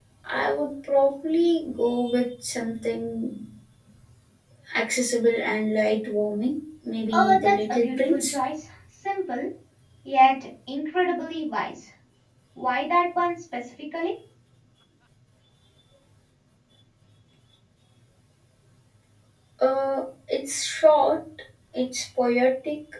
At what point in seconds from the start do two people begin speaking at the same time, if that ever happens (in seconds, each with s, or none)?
7.1 s